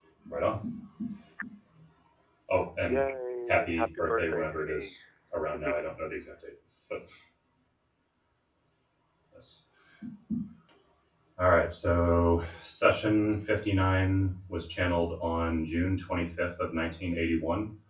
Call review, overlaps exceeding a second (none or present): present